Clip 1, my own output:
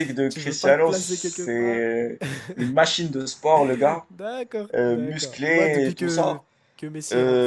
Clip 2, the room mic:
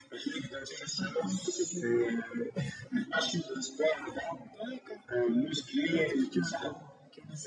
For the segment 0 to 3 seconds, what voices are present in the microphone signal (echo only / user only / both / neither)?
echo only